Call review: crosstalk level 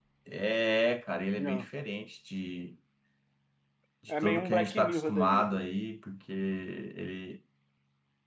present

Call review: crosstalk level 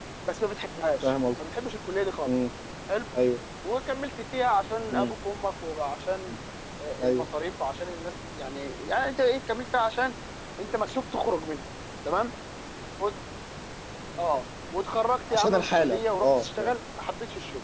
present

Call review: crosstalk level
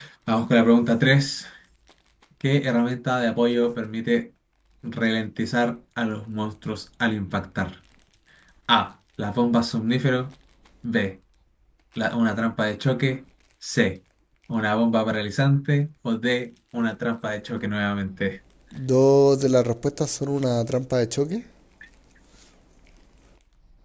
none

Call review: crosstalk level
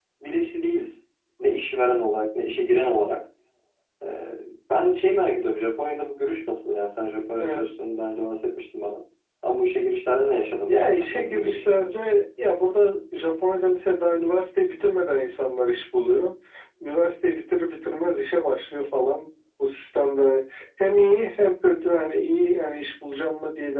present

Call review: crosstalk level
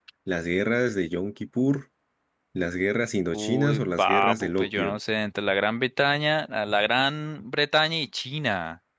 present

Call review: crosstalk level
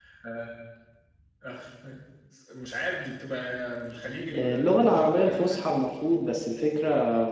present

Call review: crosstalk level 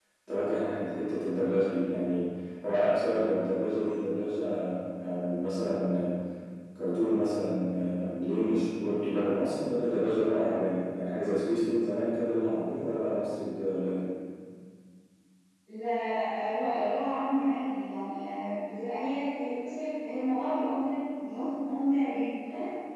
none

